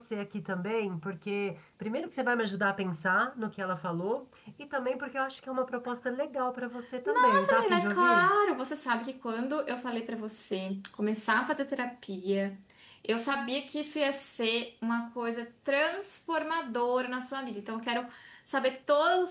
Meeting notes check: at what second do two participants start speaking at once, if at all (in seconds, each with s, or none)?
7.0 s